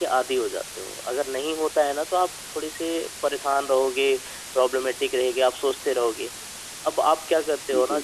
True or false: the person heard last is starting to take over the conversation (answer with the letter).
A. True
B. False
B